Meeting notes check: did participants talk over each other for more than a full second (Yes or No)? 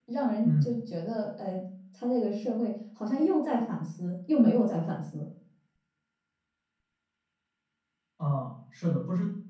No